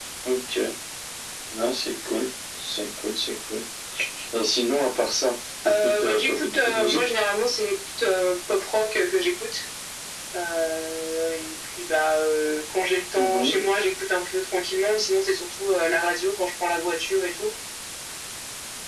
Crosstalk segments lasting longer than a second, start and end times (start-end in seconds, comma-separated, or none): 5.7-7.1